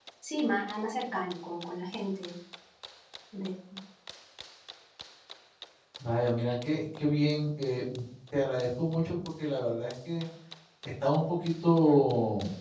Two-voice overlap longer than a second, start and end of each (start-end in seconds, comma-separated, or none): none